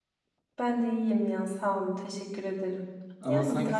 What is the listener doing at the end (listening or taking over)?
taking over